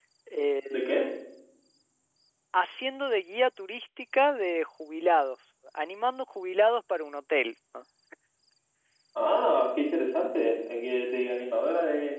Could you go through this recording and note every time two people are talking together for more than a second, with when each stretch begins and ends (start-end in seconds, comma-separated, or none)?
none